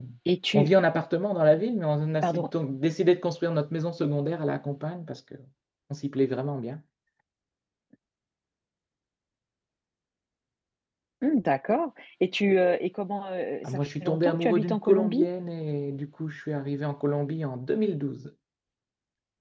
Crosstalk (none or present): present